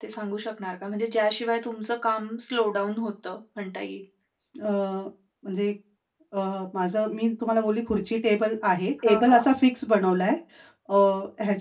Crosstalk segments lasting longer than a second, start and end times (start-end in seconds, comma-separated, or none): none